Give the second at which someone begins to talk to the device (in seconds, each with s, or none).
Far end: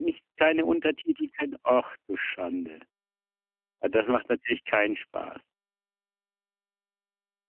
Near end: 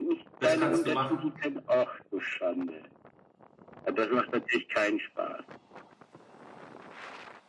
0.4 s